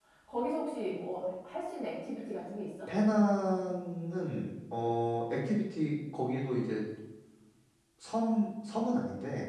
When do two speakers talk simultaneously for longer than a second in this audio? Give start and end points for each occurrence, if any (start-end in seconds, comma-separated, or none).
none